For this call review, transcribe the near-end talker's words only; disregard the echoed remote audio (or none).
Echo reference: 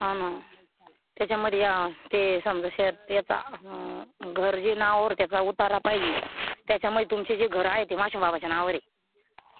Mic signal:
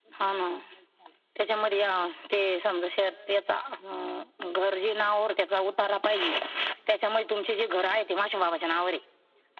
none